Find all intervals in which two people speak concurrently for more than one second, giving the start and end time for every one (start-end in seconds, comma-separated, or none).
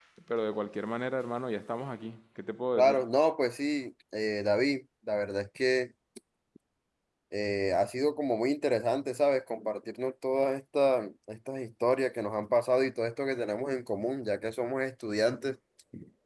none